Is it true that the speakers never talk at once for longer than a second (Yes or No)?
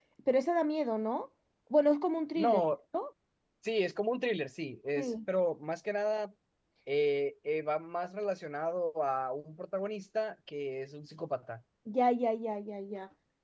Yes